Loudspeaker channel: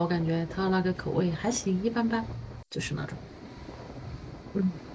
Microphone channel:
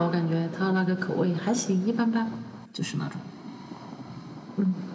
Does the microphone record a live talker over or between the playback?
No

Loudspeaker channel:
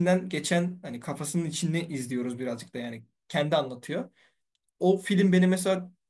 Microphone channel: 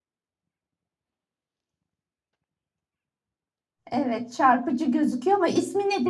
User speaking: Yes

